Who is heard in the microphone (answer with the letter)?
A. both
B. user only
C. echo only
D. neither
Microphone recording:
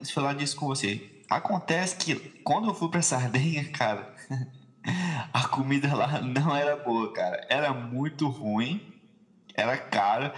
C